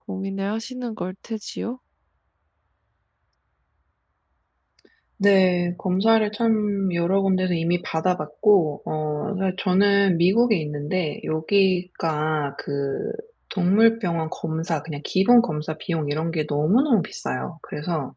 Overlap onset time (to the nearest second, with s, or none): none